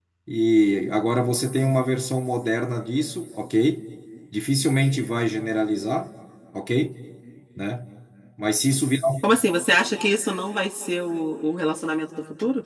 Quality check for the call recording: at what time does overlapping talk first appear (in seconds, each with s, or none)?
none